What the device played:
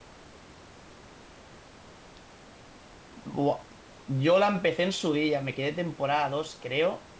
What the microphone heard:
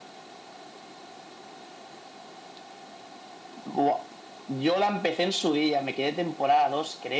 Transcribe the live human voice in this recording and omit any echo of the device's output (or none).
none